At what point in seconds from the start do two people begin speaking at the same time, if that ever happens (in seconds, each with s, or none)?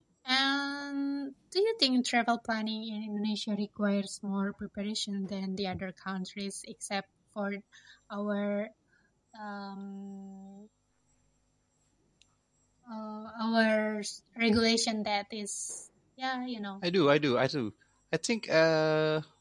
none